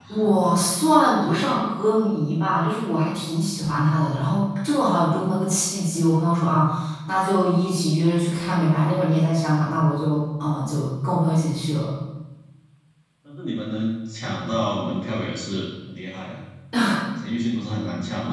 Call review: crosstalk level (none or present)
none